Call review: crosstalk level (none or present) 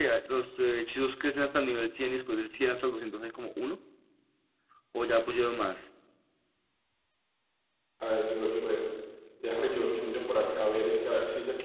none